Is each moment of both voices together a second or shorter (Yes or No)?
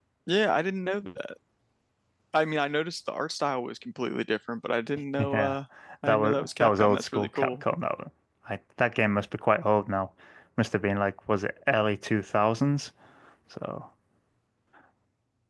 No